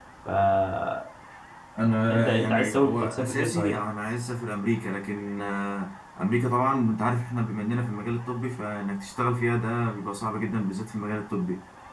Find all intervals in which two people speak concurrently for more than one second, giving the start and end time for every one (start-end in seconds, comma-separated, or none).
2.1-3.7